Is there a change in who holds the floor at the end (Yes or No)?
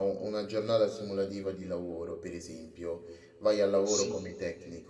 No